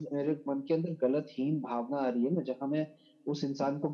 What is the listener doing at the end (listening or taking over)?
listening